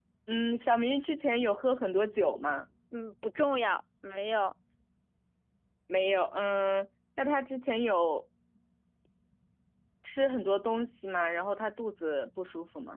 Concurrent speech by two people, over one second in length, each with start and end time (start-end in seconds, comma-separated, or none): none